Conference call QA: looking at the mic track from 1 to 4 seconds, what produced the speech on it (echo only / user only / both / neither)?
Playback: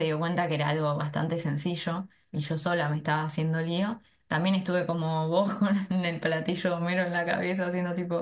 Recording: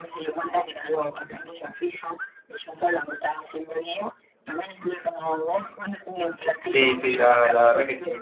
echo only